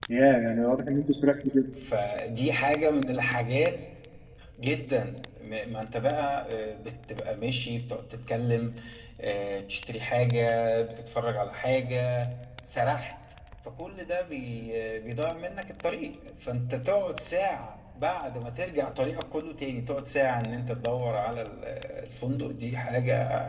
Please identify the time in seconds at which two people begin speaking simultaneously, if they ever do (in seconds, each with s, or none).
none